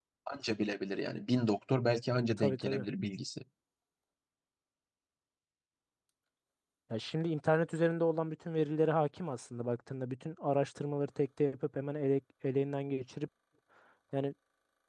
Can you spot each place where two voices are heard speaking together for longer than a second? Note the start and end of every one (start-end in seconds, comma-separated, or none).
none